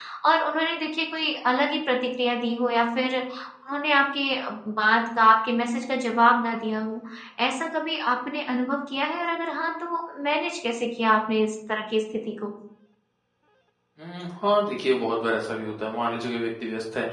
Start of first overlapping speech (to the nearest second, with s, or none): none